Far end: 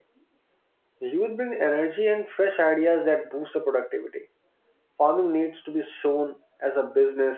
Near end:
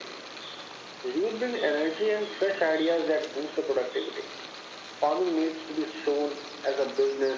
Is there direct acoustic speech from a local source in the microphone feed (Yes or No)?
No